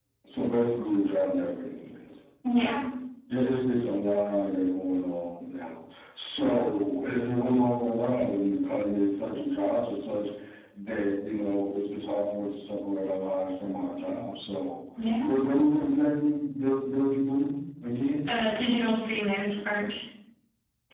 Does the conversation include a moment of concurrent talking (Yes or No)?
No